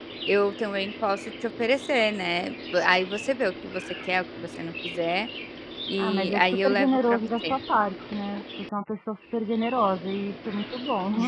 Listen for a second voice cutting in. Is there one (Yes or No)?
Yes